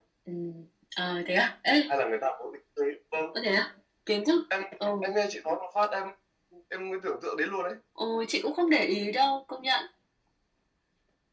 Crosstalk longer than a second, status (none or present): none